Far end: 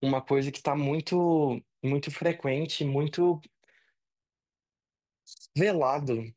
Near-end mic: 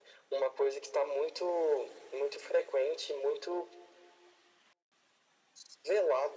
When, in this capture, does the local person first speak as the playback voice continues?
none

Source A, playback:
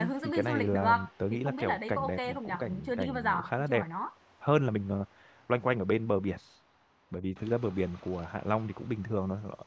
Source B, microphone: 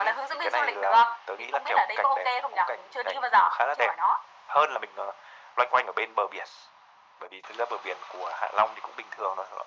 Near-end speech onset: none

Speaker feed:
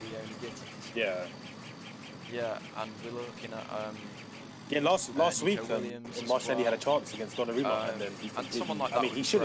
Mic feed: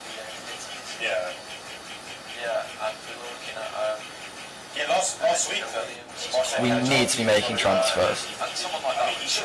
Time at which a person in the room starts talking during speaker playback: 7 s

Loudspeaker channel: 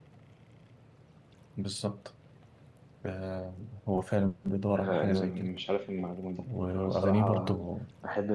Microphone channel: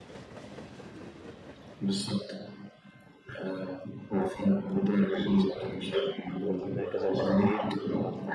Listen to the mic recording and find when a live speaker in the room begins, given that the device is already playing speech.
6 s

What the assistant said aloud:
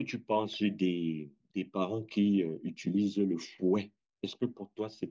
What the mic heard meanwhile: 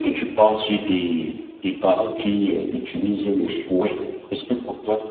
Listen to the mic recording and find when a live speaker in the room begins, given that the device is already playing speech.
none

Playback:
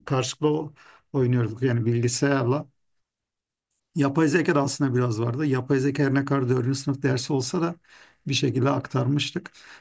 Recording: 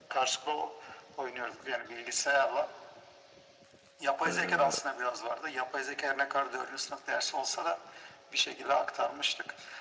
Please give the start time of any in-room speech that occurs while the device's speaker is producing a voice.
4 s

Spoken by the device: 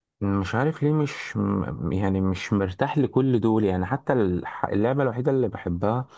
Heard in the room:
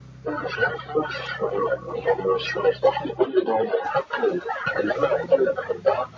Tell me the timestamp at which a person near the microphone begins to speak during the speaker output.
none

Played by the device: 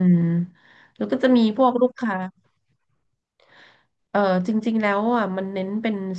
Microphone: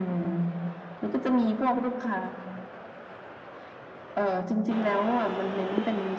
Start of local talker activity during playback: none

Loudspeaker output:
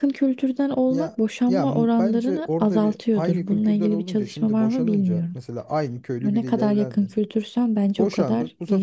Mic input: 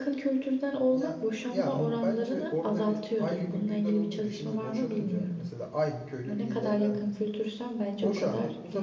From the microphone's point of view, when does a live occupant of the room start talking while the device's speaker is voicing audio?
none

